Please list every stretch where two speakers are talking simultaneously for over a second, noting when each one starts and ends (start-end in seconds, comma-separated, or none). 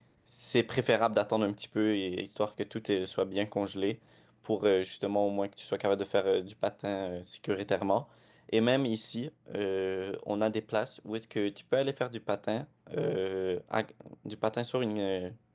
none